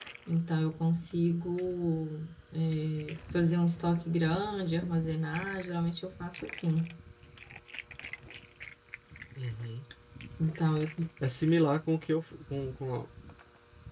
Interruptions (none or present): none